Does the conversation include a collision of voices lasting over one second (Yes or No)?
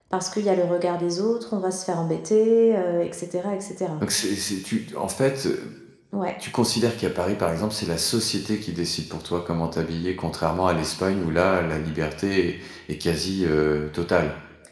No